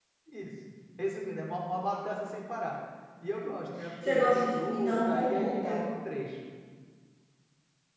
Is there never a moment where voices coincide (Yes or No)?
No